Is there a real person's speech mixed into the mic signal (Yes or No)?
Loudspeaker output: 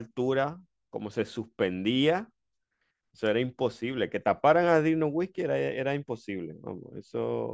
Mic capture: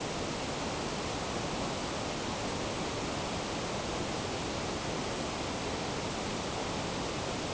No